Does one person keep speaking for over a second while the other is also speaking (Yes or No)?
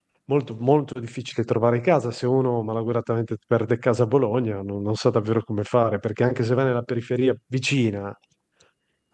No